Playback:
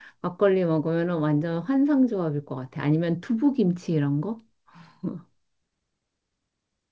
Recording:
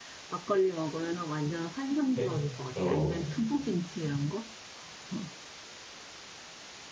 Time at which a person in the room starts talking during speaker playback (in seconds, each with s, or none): 2.1 s